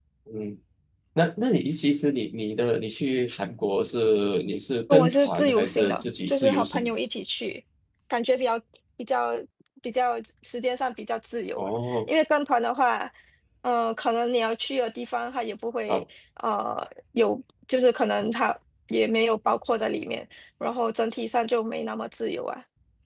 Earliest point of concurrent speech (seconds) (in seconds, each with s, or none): 4.9 s